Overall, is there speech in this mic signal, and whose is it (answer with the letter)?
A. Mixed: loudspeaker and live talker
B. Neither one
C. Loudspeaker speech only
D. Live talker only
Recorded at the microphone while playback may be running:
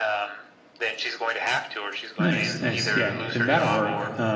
A